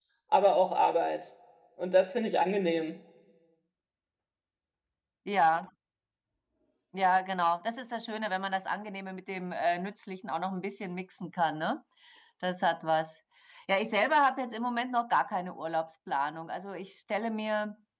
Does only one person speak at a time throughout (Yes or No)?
Yes